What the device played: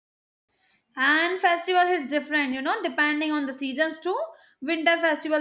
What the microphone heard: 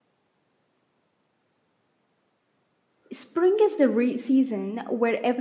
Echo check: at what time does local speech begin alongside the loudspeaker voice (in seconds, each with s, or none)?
3.1 s